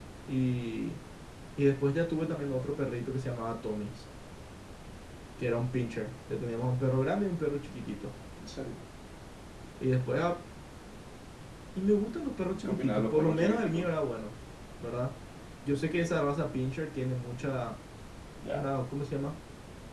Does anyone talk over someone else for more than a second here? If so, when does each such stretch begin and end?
12.5-13.9

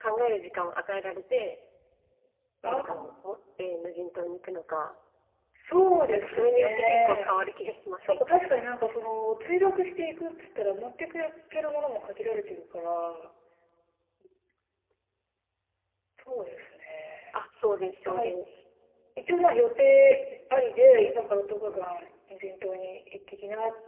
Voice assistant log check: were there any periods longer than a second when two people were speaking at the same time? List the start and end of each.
6.1-7.4

